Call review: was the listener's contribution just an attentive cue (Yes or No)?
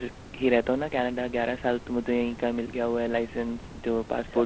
No